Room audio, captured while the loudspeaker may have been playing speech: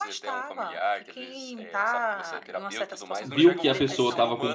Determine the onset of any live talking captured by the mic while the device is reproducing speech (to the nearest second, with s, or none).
3 s